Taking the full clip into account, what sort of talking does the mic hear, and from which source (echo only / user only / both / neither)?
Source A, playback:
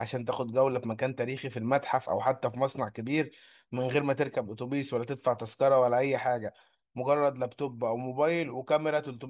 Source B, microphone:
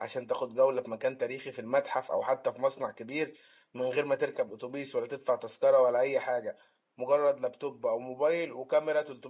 echo only